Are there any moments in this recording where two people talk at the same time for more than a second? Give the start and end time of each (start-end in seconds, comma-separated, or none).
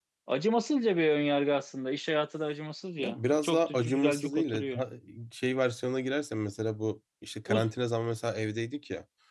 3.0-4.8